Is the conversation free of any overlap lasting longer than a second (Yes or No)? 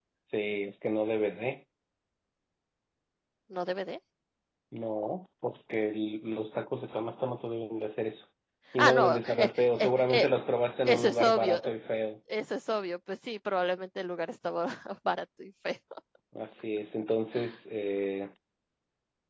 No